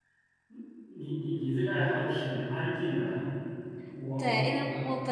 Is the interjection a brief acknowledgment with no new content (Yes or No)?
No